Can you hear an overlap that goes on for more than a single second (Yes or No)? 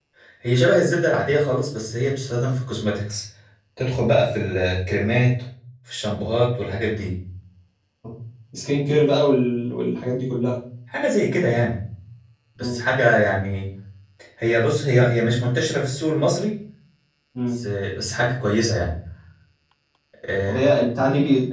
No